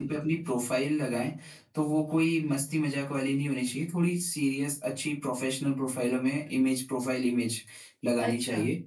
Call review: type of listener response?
listening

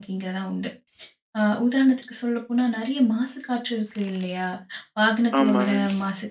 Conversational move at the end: listening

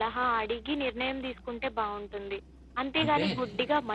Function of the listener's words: listening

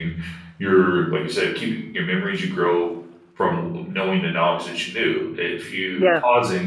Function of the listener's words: listening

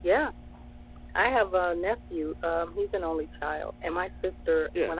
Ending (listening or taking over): listening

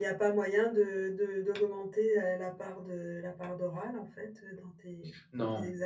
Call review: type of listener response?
taking over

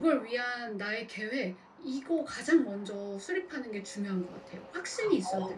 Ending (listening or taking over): taking over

